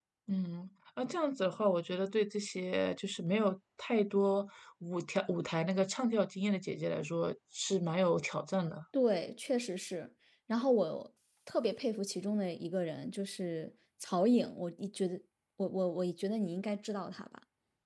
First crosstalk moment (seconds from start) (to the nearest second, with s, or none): none